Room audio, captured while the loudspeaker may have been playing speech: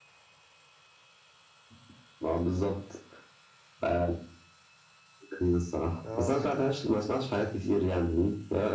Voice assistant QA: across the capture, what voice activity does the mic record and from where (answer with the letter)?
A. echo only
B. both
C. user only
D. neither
B